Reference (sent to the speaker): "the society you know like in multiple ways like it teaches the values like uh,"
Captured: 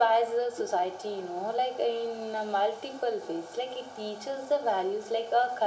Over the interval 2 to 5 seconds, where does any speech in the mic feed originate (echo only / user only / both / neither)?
echo only